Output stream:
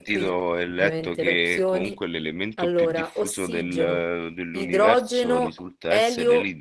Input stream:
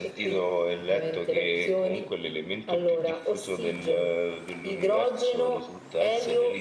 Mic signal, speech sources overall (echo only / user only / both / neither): echo only